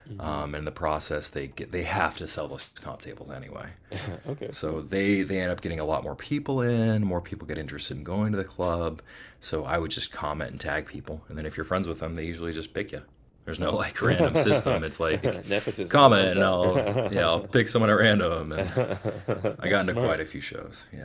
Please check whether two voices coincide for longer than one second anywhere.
Yes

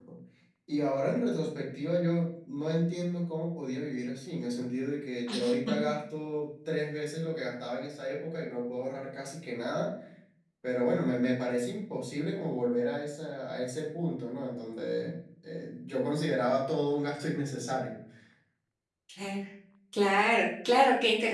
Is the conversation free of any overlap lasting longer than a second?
Yes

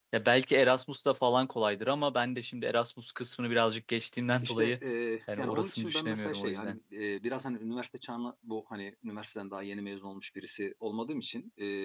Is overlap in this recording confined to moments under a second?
No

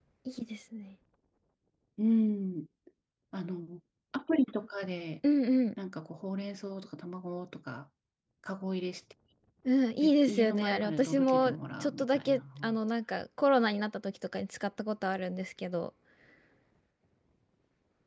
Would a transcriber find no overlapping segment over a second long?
No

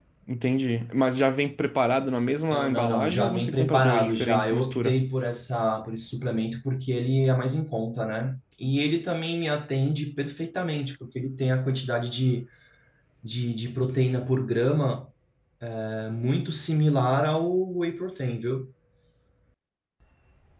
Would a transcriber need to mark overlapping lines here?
Yes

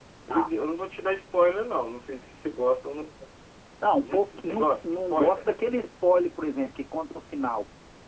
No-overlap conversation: No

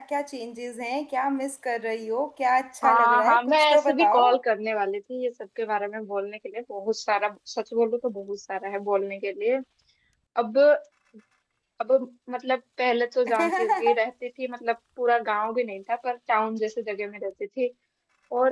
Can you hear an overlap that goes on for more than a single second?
Yes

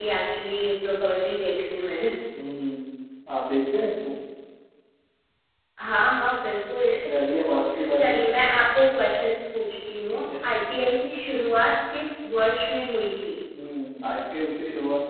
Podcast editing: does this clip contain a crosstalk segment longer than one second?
No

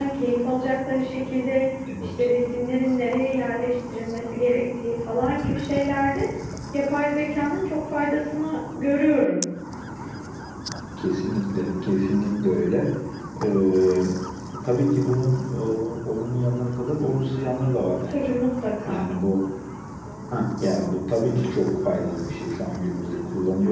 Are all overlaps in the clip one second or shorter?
Yes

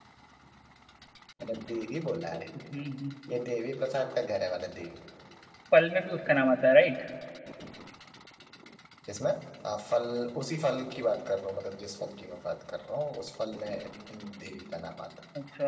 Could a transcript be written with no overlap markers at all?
Yes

